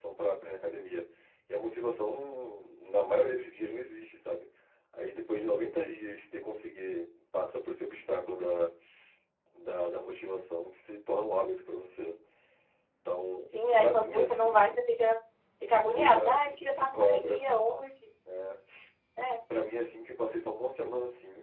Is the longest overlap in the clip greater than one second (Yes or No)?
Yes